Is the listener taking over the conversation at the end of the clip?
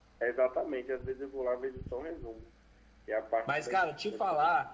Yes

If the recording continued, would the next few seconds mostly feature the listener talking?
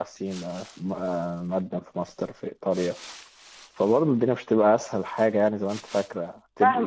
Yes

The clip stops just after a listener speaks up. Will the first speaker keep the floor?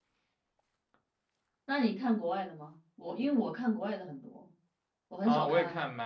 No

